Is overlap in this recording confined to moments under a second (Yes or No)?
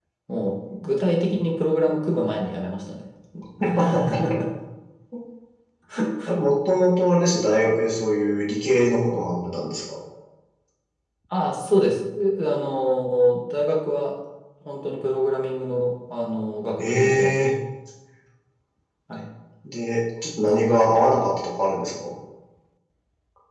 Yes